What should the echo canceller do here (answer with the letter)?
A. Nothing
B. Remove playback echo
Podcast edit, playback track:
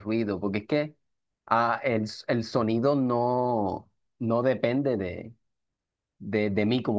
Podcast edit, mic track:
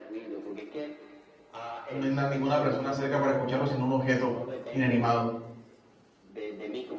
B